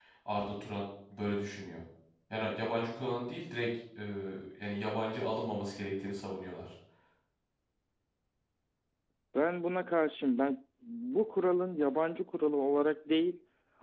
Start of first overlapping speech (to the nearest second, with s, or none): none